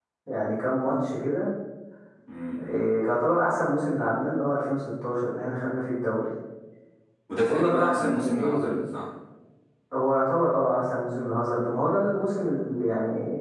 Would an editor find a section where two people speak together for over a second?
Yes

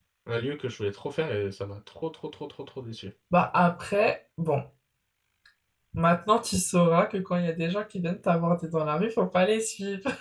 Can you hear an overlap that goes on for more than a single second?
No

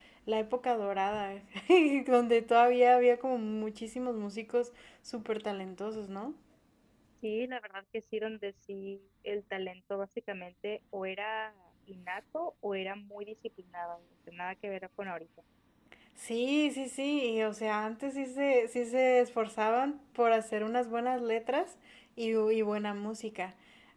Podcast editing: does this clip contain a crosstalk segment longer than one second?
No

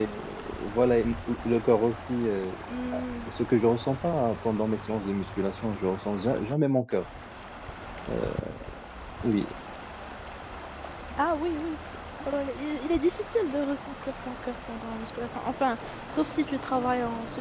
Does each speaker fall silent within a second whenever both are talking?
Yes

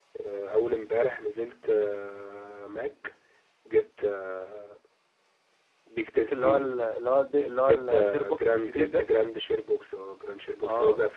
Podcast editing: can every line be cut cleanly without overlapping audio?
No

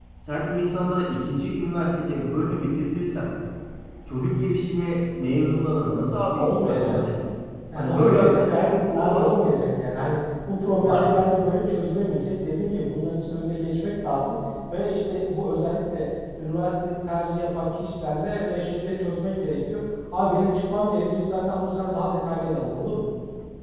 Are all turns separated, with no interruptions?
No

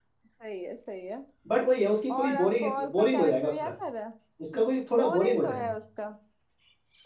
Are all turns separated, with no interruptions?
No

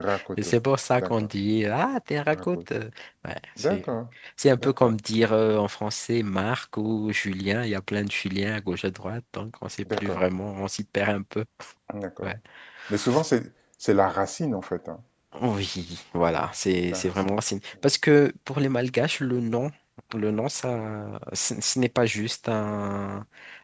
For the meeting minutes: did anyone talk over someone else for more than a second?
No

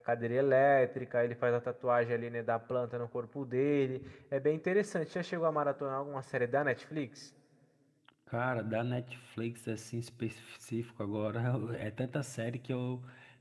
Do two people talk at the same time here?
No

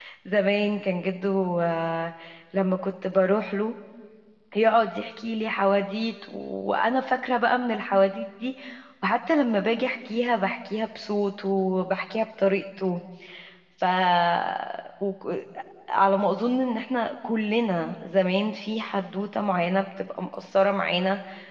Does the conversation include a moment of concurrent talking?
No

